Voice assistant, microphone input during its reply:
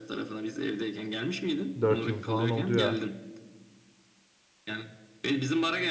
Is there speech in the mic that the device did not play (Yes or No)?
Yes